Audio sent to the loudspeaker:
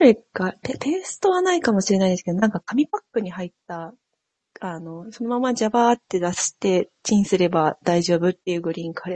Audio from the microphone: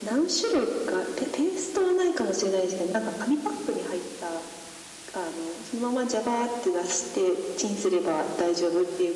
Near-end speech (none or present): none